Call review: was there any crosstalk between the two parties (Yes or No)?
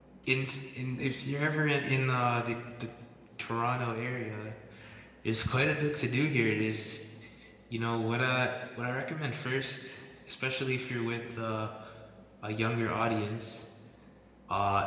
No